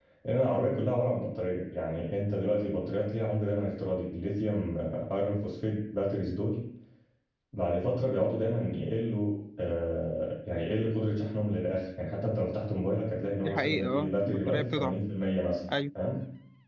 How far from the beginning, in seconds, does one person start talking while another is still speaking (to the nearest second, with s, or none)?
13 s